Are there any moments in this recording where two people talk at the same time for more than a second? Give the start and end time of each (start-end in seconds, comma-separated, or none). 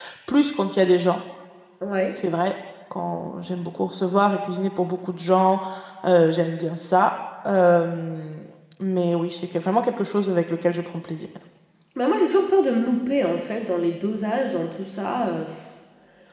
none